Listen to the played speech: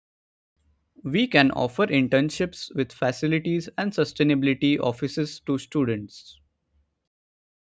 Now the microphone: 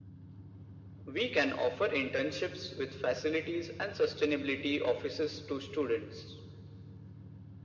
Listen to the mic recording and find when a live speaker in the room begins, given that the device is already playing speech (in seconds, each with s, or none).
none